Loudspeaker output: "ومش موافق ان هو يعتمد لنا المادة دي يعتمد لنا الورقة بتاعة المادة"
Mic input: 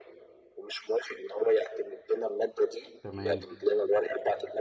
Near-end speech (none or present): present